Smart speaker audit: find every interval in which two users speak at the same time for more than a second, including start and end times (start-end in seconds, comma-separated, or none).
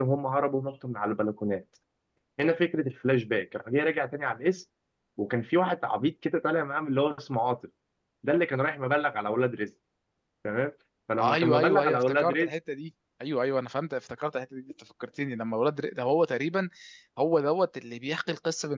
11.2-12.5